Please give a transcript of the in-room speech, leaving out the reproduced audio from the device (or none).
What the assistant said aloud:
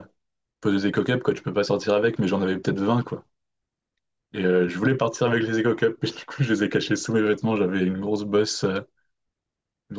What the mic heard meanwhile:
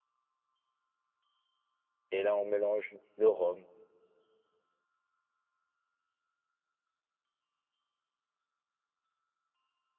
Et là, on mélange le rhum.